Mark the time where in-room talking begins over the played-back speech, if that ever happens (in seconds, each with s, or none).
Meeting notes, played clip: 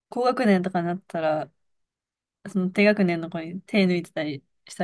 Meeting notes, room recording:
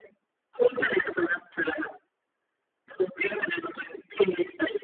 none